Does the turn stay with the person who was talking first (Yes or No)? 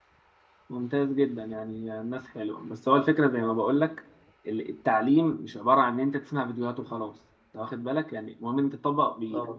Yes